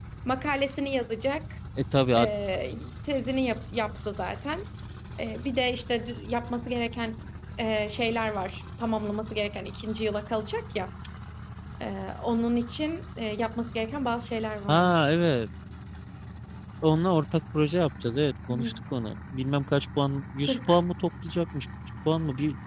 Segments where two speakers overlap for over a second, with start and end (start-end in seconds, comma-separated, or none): none